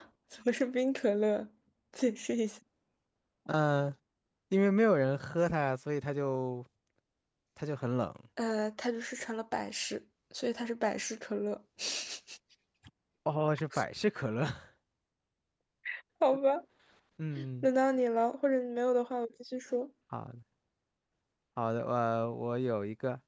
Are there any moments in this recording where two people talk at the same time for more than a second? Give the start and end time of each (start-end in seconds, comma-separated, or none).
none